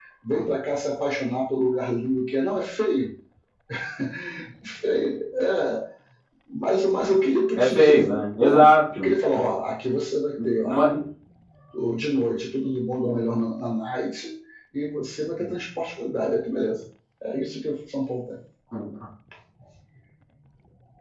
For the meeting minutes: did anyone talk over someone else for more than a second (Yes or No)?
Yes